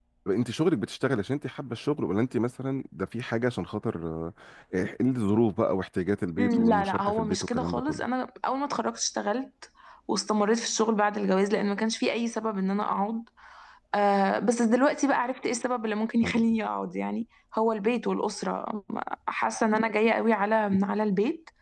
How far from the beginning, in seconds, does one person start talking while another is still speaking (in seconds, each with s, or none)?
6.4 s